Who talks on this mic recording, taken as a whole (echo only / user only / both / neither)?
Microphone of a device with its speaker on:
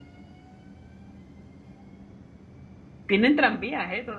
user only